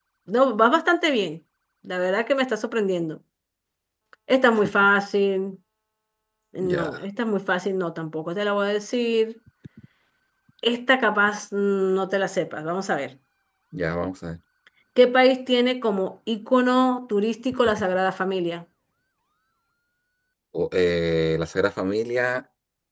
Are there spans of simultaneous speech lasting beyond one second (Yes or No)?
No